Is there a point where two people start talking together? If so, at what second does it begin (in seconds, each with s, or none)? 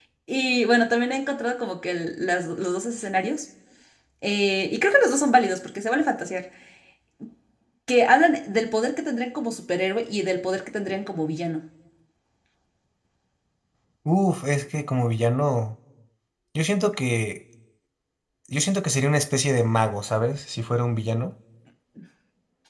none